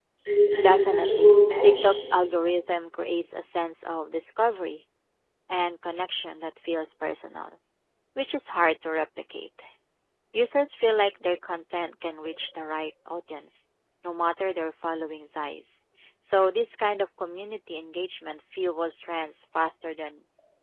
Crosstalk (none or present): present